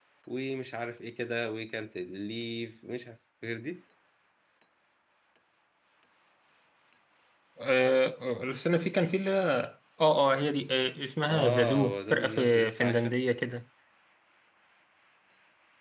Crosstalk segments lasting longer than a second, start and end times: 11.3-13.2

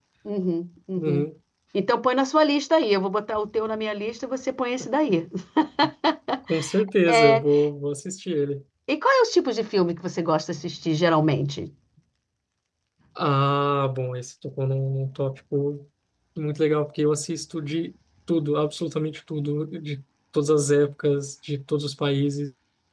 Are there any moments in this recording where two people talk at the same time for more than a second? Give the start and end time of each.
none

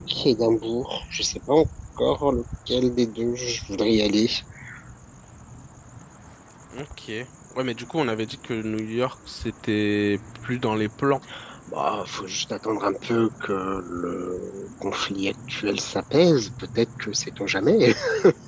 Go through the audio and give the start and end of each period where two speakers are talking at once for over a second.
none

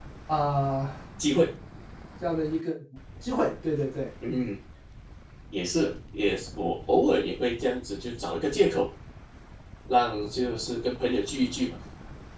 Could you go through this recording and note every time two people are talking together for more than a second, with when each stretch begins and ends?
none

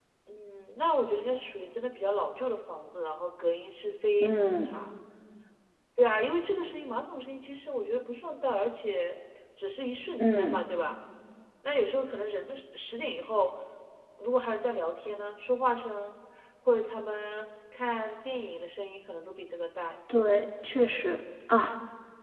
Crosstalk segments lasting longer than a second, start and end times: none

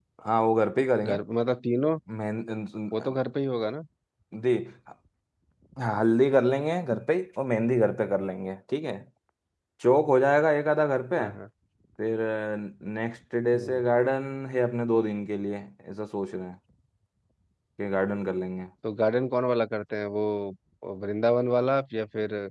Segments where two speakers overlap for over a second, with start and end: none

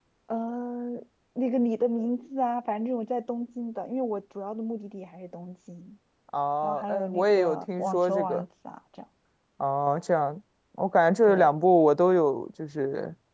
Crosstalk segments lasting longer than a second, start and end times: 6.6-8.4

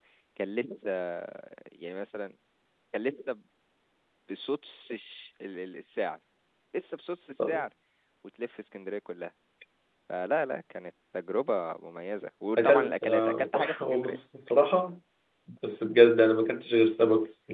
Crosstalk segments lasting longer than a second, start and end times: 12.6-14.2

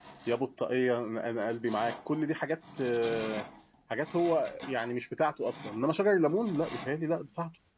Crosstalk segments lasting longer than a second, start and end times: none

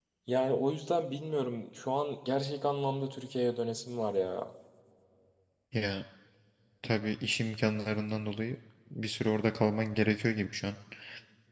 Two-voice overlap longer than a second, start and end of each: none

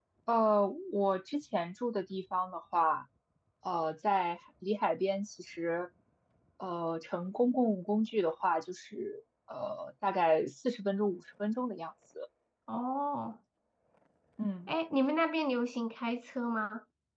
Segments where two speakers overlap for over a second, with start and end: none

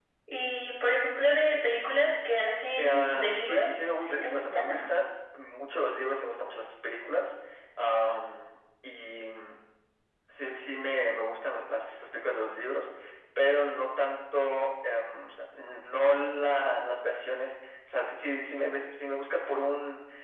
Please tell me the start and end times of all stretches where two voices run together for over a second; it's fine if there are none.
2.8-4.9

